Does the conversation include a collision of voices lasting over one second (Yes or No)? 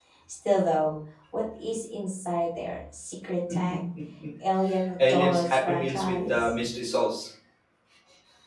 Yes